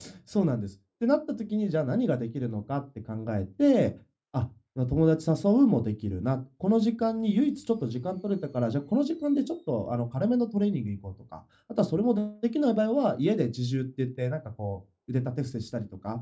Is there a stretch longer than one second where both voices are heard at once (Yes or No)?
No